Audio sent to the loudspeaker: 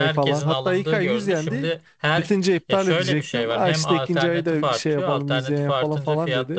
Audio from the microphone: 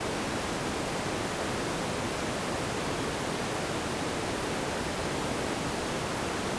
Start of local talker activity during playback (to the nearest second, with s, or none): none